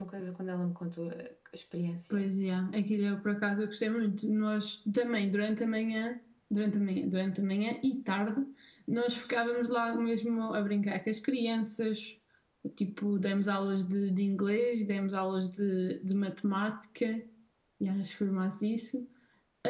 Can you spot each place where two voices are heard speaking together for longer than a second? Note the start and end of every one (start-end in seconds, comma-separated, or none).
none